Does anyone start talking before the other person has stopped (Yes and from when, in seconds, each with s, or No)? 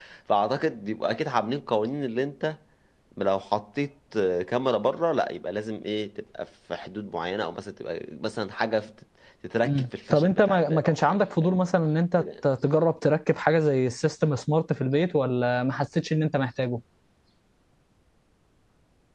Yes, from 9.6 s